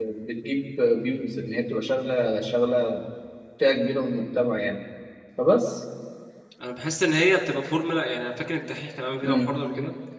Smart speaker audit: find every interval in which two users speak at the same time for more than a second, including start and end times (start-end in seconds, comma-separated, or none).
none